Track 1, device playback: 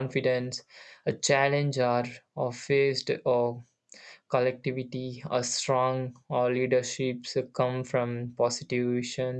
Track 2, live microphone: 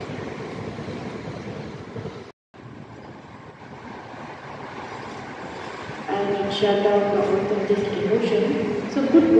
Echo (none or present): none